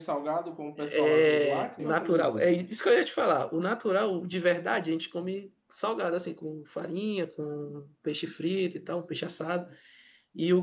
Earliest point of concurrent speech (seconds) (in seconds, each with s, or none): 0.8 s